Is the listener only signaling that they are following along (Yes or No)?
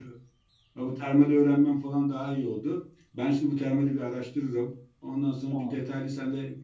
Yes